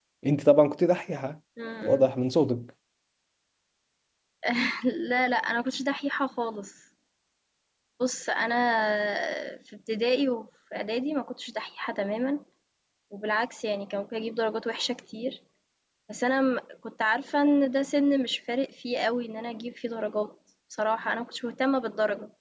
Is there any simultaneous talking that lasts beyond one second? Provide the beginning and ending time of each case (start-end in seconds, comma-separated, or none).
none